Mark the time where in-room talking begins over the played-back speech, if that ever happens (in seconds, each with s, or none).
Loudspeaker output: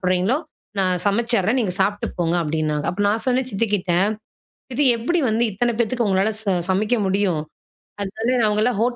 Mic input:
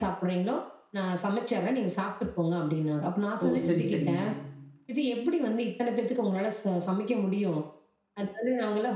3.4 s